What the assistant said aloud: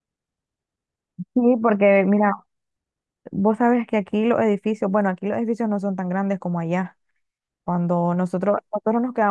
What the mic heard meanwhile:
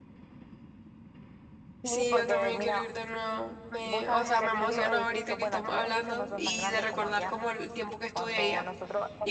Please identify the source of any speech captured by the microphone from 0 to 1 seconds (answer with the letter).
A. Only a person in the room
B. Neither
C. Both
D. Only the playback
B